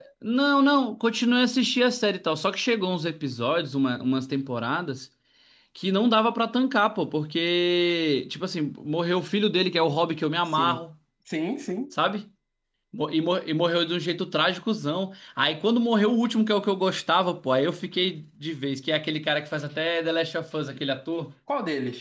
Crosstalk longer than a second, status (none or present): none